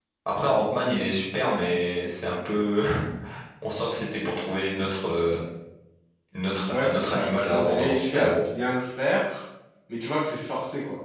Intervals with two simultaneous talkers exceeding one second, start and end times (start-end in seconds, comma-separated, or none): 6.7-8.4